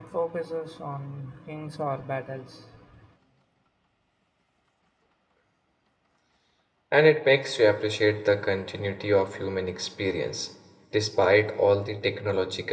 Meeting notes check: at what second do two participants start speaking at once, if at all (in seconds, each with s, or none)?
none